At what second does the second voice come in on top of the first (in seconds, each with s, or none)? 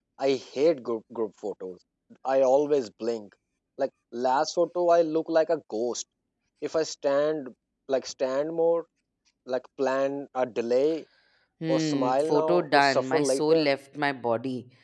11.7 s